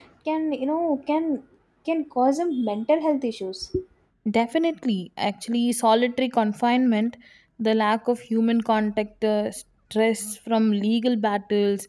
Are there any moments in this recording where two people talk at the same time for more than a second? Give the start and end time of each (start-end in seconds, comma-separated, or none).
none